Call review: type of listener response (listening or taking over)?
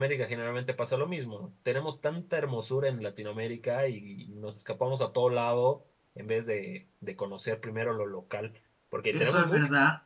taking over